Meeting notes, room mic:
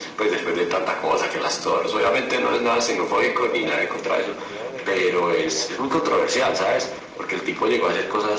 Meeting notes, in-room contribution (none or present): present